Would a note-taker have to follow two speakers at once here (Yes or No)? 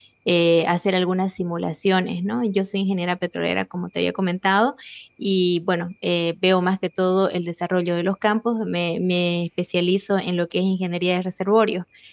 No